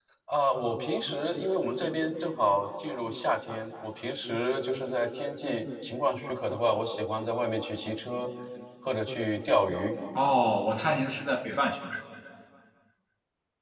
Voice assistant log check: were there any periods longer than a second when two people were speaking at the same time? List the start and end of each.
none

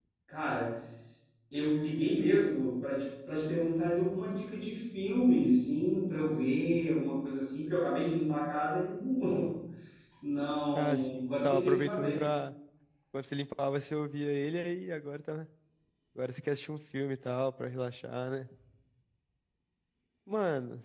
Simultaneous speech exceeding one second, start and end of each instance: 10.7-12.2

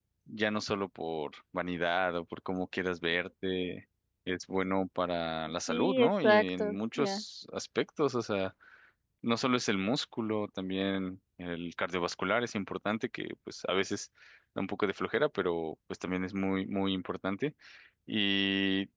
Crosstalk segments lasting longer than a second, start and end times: 5.7-7.2

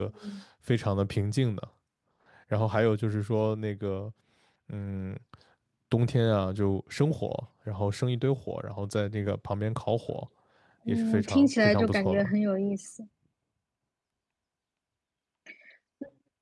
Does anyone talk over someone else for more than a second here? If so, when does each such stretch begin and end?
10.9-12.3

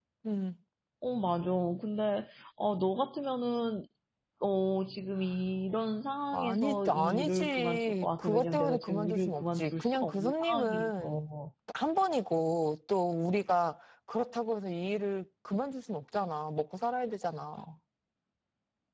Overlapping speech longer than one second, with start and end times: 6.3-11.3

